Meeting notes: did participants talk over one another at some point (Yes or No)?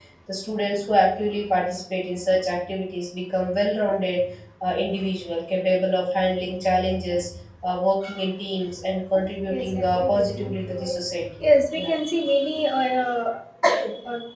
Yes